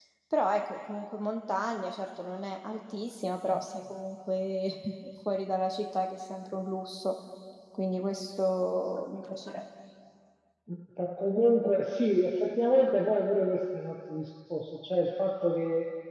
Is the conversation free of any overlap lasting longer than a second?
Yes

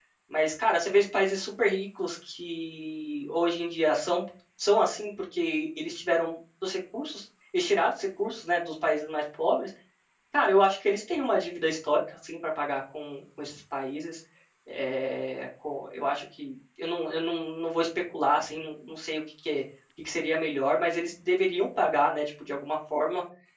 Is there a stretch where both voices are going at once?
No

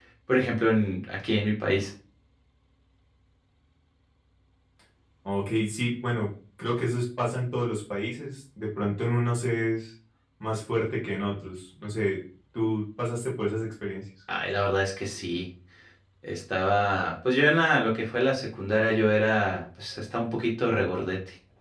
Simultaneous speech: No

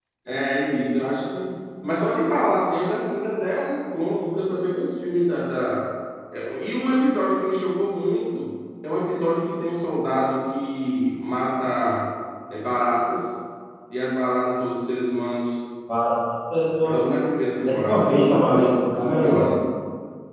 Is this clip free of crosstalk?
No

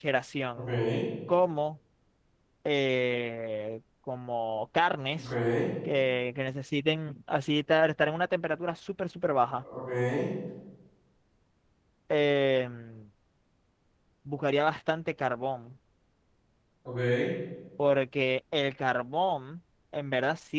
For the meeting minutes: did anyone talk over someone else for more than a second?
No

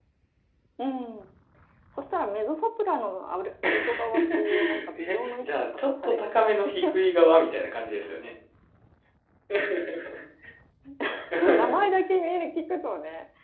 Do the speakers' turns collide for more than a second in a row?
Yes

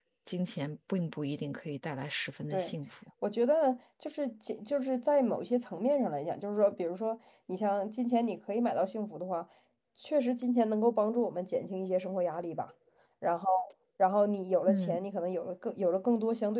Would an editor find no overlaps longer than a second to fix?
Yes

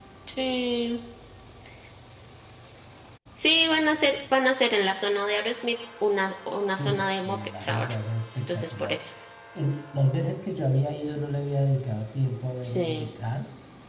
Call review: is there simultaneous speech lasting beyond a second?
Yes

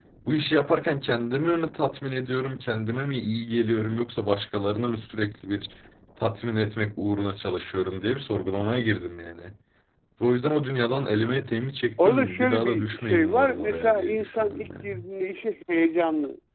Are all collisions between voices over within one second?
No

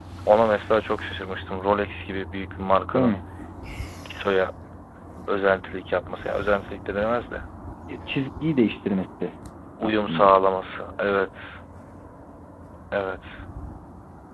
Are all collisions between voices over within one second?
Yes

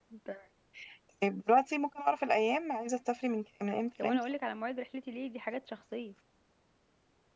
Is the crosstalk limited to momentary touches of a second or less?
Yes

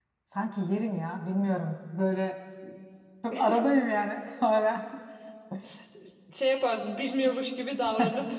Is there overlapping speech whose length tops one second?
No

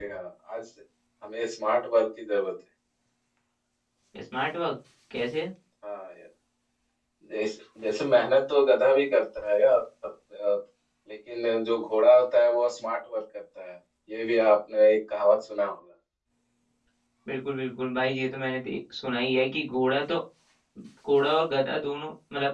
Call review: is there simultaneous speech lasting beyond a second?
No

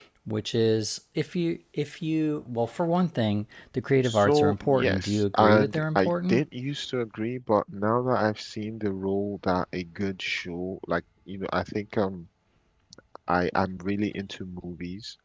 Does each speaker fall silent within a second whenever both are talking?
No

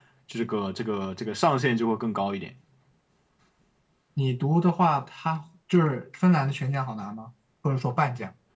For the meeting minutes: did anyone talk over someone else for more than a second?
No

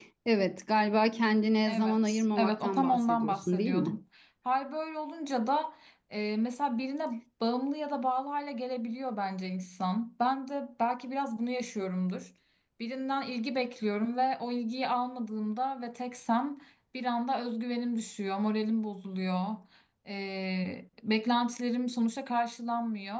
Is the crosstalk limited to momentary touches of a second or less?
No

